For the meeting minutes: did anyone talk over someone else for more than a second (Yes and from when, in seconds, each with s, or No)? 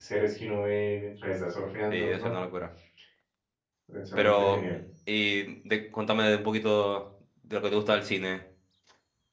No